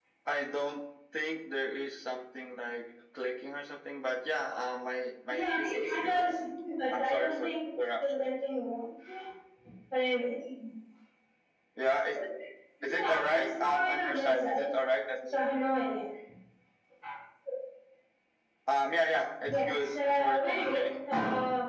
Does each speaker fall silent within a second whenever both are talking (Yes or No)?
No